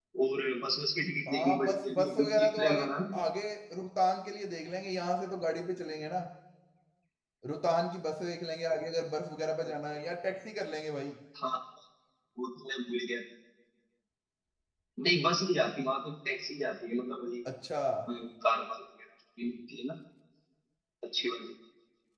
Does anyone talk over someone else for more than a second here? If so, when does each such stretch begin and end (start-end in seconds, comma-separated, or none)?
1.3-2.9